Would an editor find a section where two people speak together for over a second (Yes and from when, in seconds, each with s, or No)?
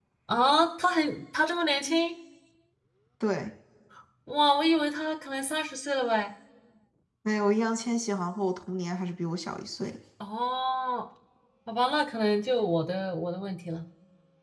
No